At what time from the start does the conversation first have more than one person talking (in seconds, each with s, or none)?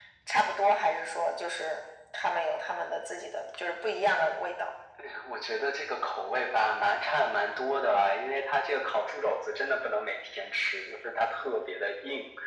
none